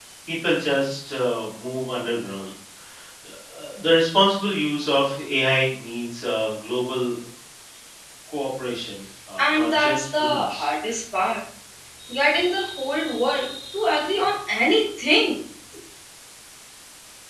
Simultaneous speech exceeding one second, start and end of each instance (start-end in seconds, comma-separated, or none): 9.4-10.7